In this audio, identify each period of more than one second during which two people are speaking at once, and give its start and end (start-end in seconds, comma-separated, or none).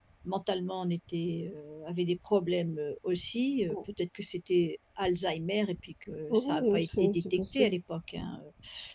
6.3-7.8